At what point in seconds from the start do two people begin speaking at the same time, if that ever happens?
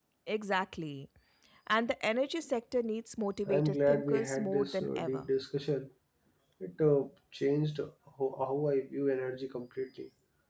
3.5 s

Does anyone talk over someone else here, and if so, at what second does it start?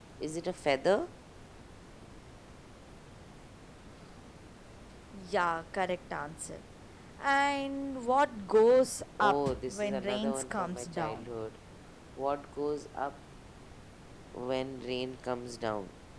9.2 s

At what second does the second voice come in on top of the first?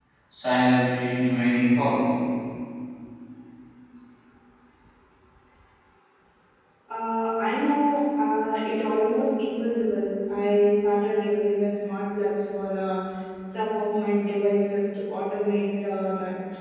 none

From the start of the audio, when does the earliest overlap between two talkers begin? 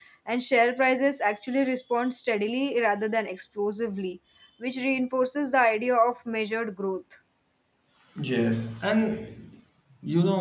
none

